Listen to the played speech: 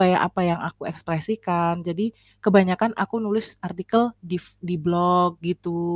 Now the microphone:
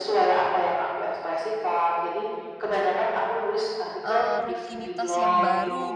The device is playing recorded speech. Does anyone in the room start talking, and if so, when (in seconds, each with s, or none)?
4.0 s